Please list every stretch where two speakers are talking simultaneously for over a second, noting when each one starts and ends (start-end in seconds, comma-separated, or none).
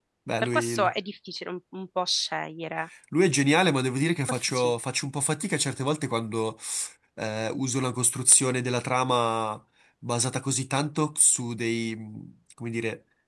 none